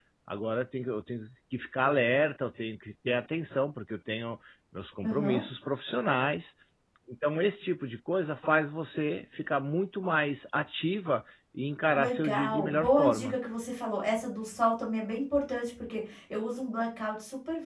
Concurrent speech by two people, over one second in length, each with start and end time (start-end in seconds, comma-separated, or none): 11.9-13.4